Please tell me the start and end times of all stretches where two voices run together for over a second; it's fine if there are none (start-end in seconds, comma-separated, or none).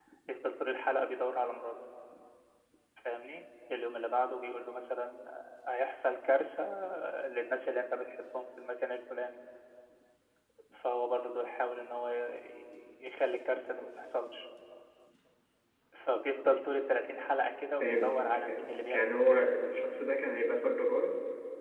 17.8-19.4